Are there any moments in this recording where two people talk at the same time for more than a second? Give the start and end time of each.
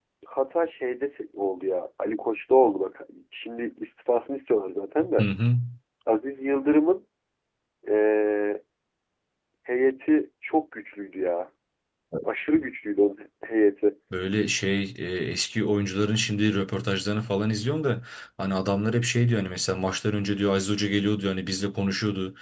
none

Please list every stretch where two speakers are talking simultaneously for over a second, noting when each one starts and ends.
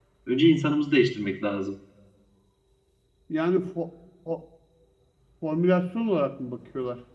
none

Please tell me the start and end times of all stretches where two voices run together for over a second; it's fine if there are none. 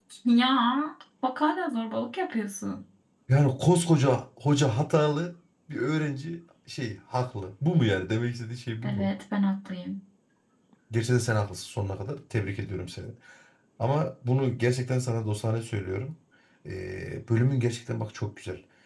none

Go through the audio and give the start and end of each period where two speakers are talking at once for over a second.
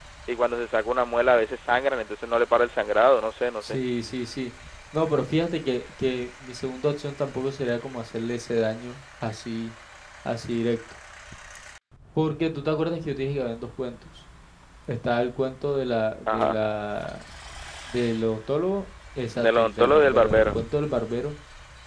19.3-20.6

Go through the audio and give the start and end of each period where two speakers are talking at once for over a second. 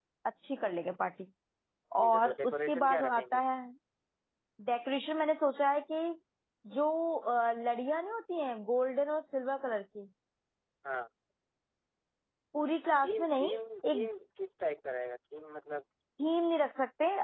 2.0-3.4

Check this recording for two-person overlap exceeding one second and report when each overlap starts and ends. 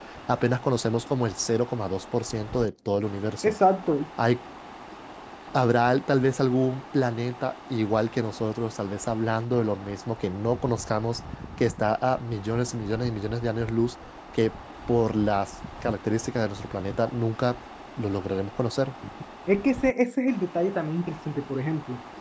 none

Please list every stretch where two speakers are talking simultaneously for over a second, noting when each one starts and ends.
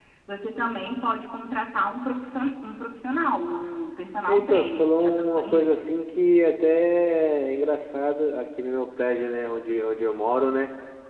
4.3-5.9

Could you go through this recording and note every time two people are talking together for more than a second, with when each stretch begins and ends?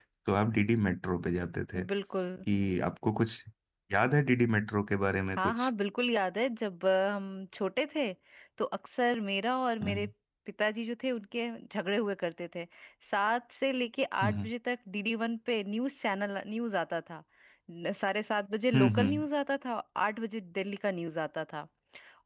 none

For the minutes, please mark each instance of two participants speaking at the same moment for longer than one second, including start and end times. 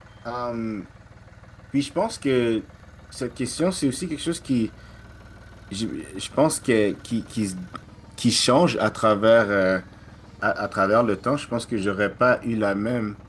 none

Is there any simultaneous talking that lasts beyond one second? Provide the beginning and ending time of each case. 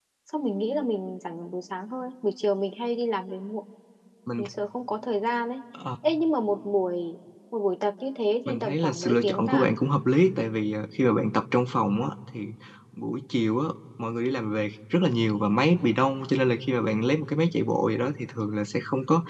8.5-9.7

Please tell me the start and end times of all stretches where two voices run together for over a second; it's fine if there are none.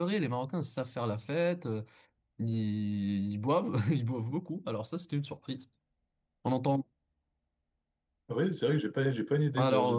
none

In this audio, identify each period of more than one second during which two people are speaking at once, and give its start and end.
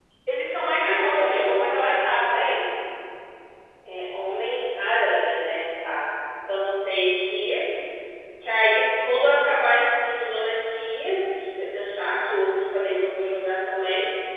0.8-2.3

